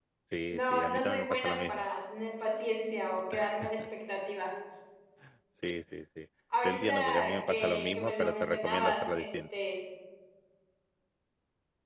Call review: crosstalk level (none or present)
present